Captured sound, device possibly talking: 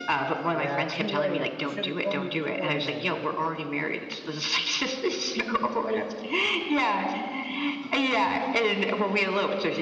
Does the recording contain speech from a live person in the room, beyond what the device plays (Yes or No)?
Yes